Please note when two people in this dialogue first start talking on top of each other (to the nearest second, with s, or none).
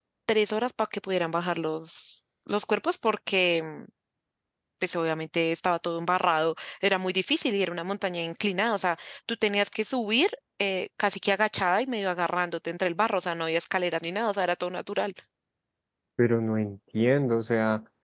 none